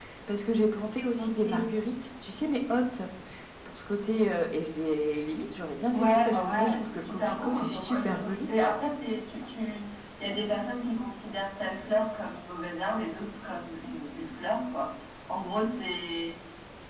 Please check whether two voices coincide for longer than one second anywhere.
Yes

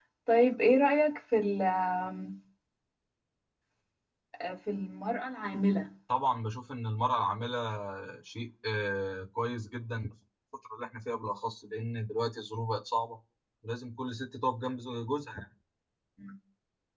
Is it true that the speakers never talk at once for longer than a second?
Yes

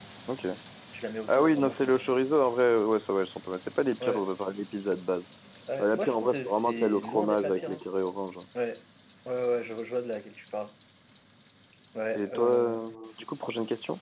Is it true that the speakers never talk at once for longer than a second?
No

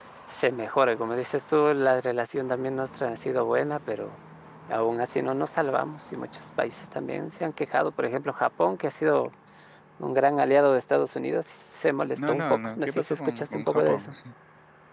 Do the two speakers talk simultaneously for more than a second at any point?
Yes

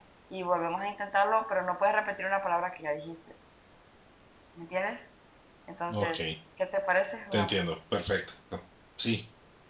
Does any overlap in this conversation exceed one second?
No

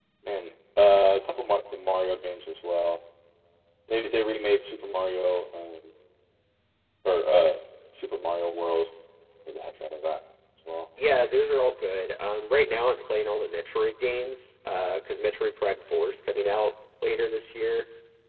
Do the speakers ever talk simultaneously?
No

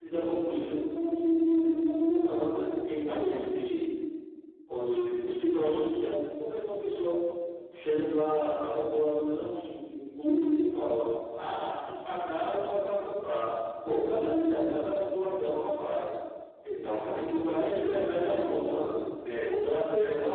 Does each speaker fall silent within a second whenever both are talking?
No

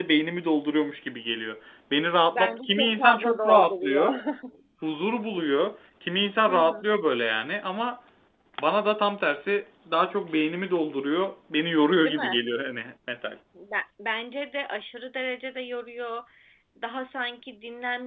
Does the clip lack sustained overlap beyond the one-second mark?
No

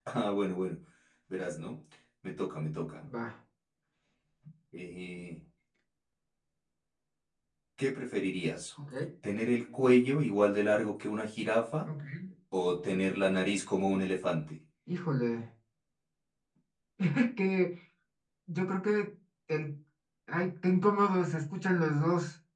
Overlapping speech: No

